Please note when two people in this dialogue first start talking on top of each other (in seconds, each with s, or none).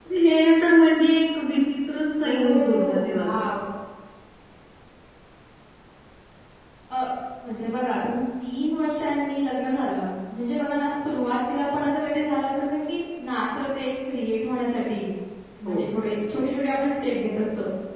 2.2 s